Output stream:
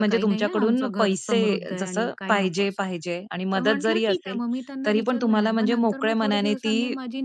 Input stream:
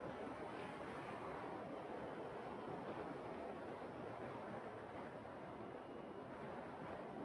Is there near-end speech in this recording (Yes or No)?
No